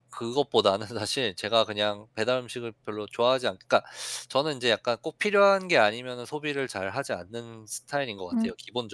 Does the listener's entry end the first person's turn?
Yes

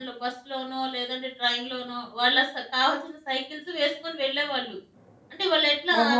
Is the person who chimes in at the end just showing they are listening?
No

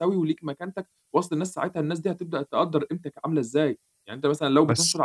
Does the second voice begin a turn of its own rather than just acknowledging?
No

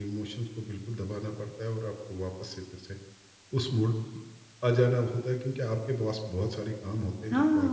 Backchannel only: No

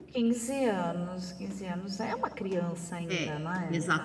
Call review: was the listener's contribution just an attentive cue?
No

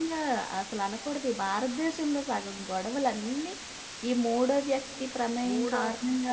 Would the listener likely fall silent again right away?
No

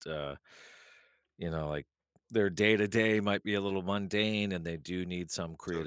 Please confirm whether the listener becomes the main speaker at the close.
No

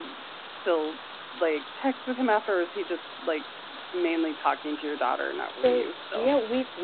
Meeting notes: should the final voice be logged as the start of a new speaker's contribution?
Yes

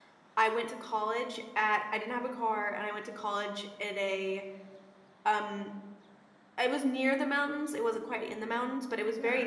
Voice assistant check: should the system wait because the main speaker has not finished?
Yes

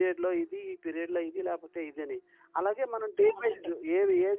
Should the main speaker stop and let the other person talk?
No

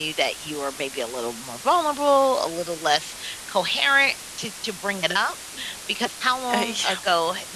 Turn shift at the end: No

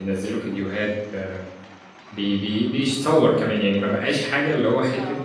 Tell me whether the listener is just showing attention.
Yes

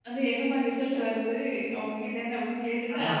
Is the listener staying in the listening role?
Yes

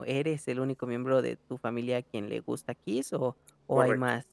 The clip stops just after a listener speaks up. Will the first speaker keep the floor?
No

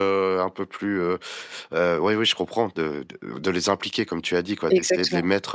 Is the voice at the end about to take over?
No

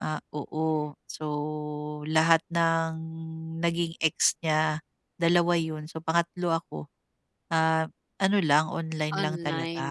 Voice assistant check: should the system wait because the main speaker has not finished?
No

